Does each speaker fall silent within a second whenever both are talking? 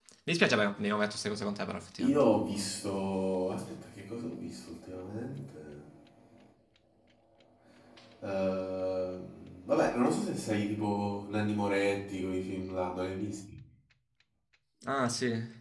Yes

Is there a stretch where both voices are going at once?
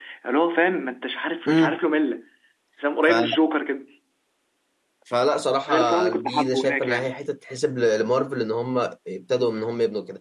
Yes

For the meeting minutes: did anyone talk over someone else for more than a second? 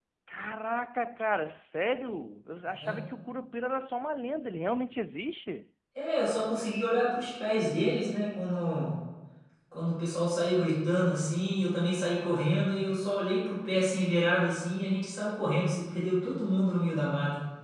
No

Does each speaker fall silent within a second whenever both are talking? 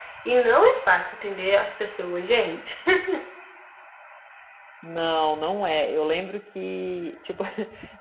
Yes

